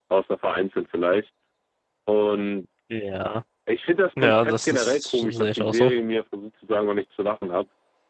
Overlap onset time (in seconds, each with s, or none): 4.2 s